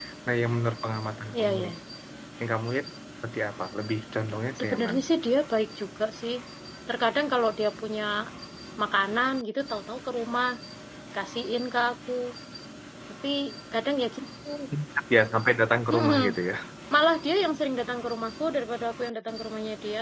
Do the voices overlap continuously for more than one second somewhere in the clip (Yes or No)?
No